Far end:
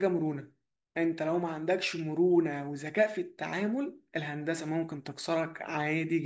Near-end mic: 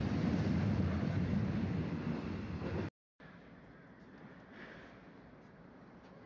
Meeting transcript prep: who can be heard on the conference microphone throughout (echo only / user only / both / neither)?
neither